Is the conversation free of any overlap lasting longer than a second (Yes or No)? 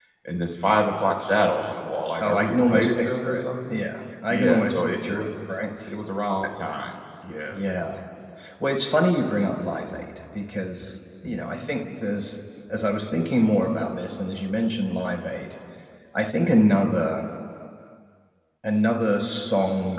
No